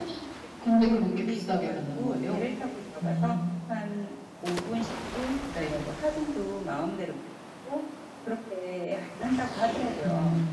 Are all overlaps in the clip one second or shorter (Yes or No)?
No